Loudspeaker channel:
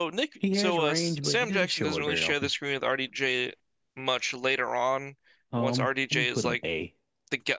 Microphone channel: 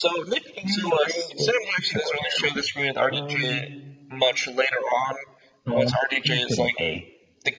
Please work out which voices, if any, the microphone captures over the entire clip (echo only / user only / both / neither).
both